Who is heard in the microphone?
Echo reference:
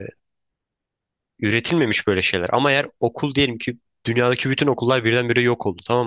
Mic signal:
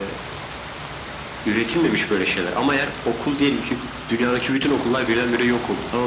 echo only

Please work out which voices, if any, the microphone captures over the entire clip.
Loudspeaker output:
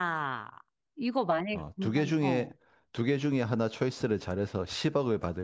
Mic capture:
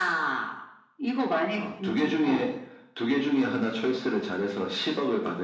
echo only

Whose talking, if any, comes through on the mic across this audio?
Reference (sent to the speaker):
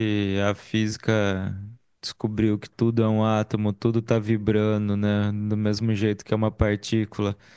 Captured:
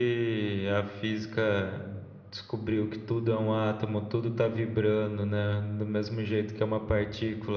echo only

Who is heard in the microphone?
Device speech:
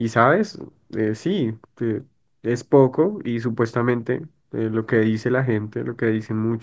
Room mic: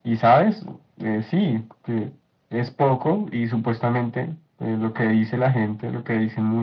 echo only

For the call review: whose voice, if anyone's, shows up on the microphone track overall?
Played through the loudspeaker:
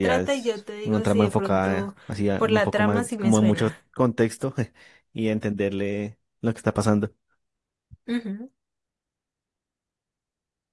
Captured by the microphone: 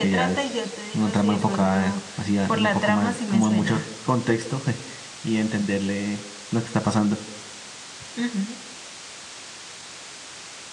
echo only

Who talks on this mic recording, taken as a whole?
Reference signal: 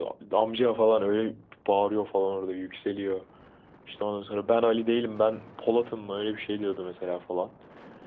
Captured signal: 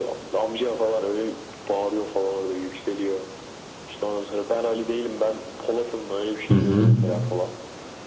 both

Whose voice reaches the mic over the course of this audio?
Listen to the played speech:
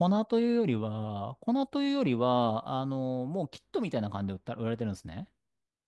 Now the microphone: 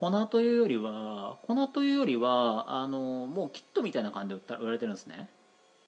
echo only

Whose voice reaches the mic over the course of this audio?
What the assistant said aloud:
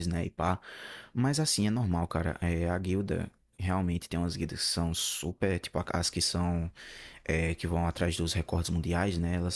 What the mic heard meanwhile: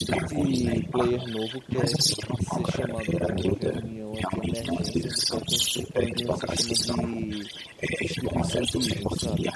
both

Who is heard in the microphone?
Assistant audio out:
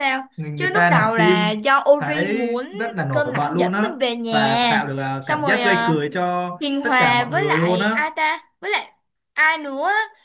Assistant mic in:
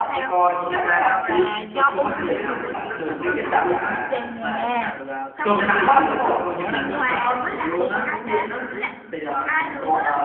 both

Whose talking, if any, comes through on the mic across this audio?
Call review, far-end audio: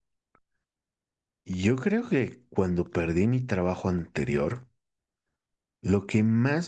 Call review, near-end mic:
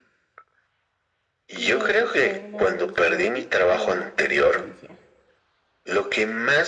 both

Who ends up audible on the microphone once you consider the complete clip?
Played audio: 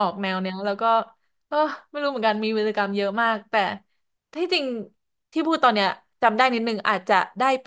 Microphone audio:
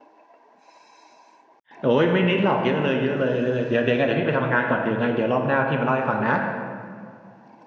user only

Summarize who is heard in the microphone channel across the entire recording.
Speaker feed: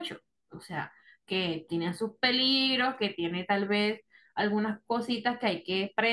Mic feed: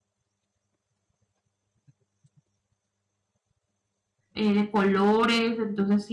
user only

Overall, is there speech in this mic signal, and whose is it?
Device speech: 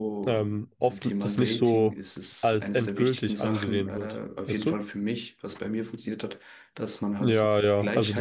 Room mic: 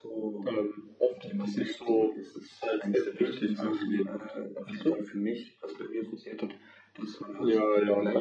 echo only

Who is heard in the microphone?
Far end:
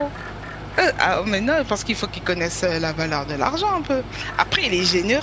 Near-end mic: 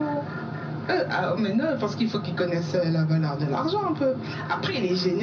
echo only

